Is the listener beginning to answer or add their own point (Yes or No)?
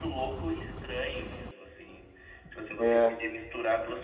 No